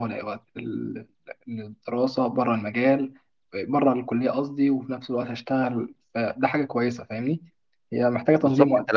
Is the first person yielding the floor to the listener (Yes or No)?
Yes